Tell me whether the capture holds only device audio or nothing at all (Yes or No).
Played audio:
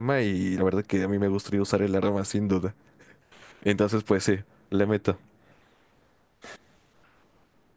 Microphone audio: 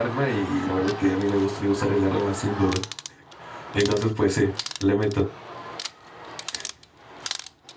Yes